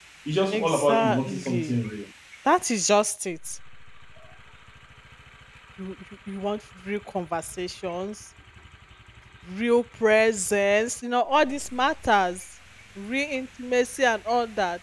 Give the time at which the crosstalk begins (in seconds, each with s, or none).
0.5 s